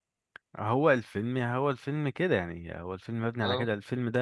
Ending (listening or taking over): listening